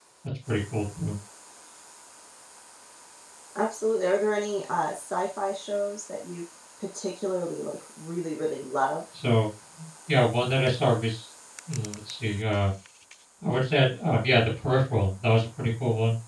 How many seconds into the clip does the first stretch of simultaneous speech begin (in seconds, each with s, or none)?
none